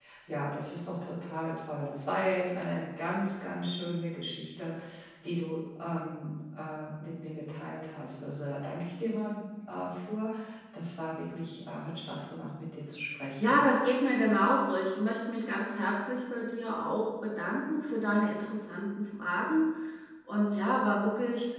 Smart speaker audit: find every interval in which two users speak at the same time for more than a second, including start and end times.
none

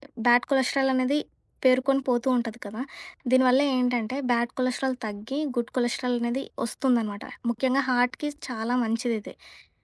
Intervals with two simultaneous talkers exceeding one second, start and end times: none

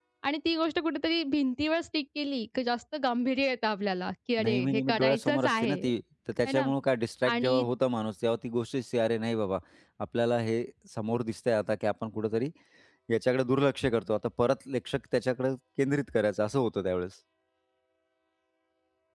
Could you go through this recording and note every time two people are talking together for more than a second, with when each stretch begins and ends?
4.4-5.8

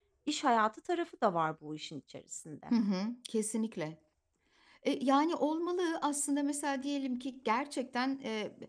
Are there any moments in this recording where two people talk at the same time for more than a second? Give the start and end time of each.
none

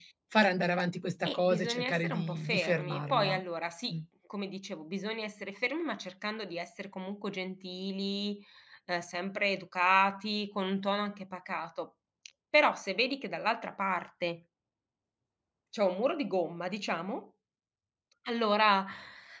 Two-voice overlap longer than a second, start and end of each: 1.2-3.4

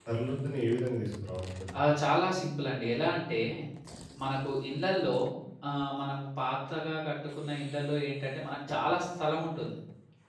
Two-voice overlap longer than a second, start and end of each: none

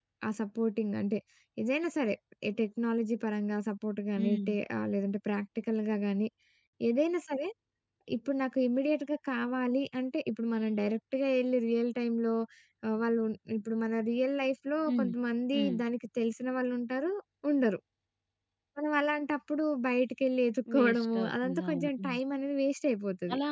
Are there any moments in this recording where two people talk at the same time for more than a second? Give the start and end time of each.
20.7-22.2

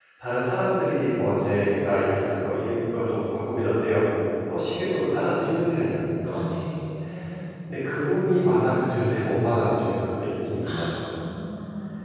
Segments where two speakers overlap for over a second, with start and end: none

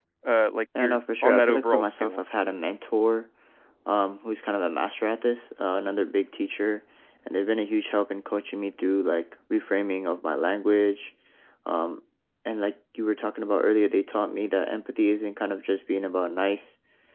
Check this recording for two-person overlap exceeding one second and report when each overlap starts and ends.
0.8-2.2

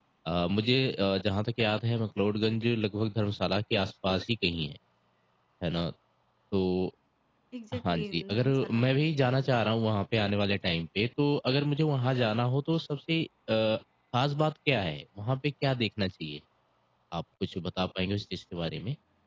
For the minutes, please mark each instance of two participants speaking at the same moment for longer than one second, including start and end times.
7.7-9.3

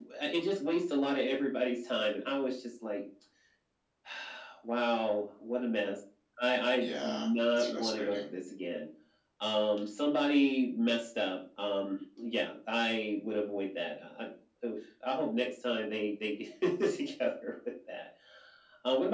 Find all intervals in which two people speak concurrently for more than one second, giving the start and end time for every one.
6.8-8.3

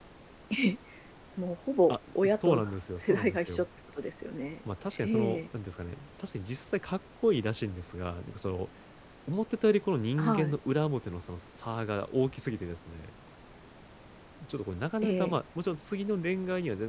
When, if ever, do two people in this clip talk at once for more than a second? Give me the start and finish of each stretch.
2.4-3.7

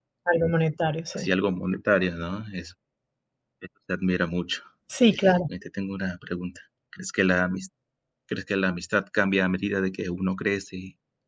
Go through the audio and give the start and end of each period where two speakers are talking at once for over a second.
none

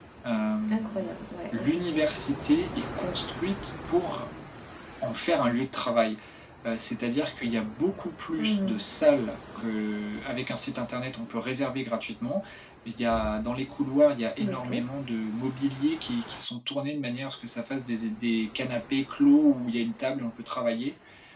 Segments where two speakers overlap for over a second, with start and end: none

